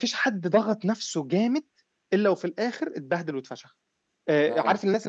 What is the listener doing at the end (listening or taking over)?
listening